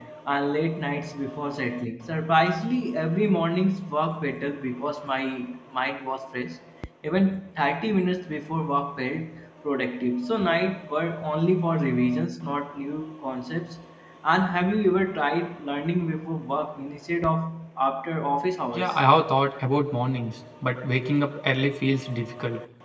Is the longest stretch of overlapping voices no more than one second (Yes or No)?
Yes